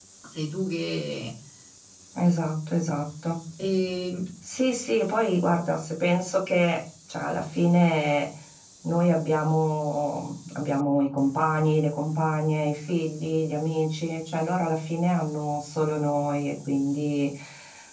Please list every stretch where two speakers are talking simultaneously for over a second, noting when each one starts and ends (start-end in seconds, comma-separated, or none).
none